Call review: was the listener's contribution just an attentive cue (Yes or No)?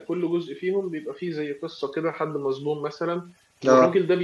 Yes